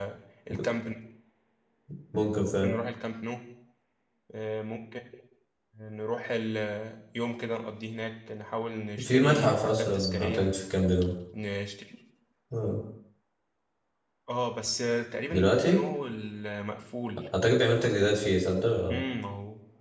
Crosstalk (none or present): present